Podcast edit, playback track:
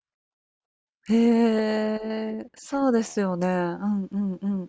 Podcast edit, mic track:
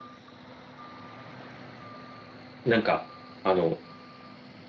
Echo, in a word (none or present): none